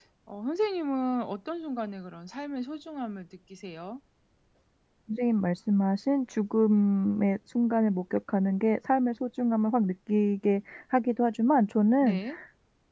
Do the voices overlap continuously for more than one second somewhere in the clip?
No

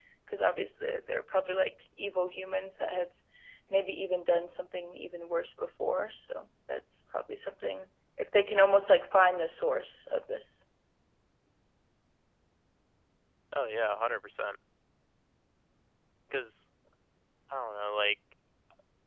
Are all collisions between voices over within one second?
Yes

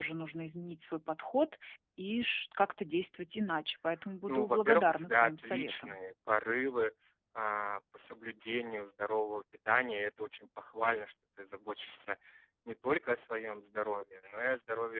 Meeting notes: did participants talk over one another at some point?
Yes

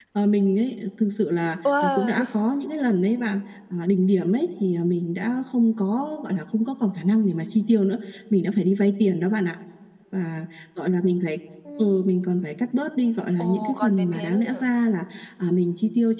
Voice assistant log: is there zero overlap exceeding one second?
No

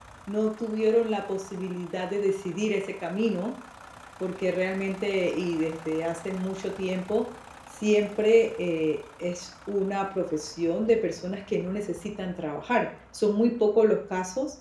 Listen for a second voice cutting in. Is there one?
No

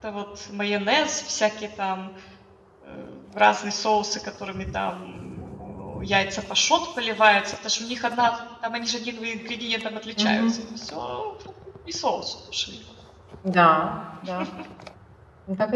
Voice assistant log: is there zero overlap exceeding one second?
Yes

